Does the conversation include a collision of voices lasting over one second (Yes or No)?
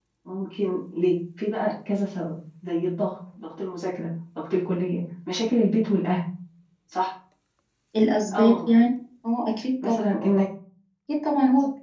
No